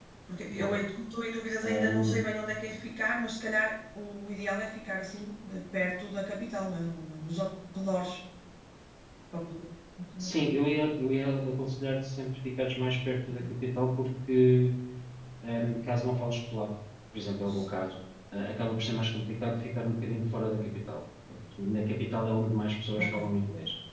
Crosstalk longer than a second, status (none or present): none